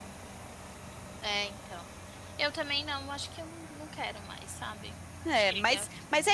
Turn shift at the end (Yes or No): Yes